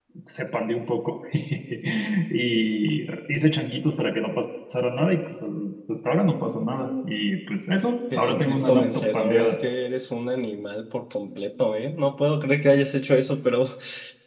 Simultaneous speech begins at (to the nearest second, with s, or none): 8 s